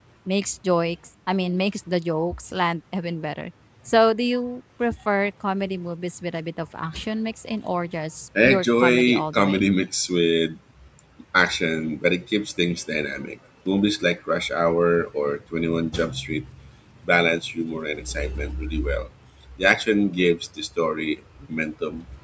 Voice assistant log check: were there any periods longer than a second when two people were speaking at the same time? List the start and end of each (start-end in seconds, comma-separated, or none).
8.4-9.7